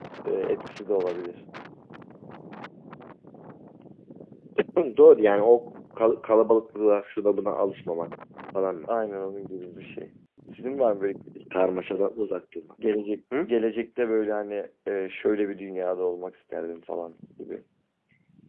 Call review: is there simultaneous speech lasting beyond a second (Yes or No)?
No